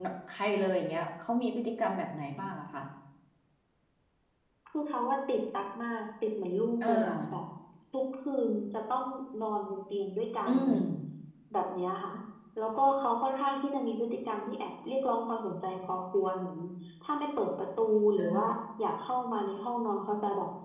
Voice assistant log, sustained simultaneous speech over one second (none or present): none